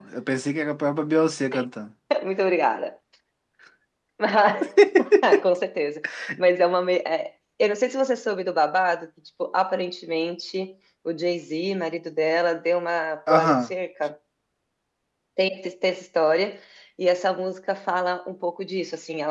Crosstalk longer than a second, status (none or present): none